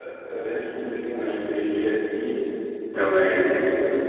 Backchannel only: Yes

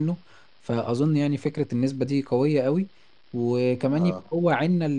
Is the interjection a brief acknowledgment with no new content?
Yes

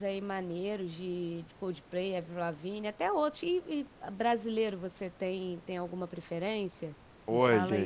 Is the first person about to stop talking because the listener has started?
Yes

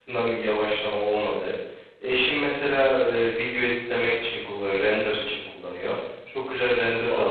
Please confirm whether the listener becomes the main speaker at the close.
No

